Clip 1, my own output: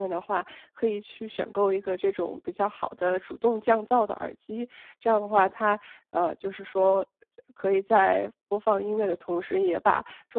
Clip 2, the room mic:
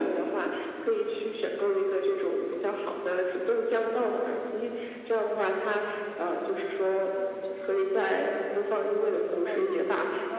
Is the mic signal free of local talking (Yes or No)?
No